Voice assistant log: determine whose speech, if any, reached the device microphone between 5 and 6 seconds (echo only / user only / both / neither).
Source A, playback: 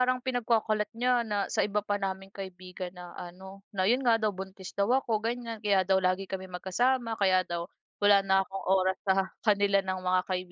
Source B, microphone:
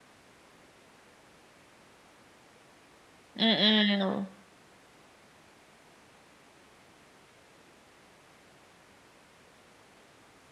neither